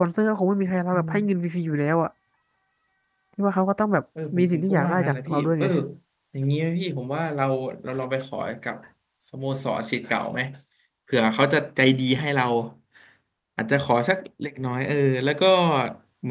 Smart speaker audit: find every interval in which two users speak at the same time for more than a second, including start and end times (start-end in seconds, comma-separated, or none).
4.3-5.7